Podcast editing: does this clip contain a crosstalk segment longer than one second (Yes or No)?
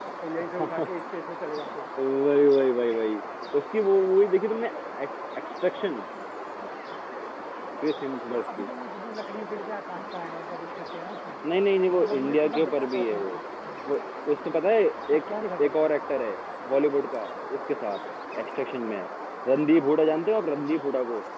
Yes